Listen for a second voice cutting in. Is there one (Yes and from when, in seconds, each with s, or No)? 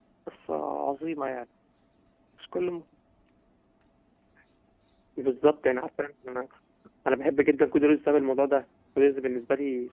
No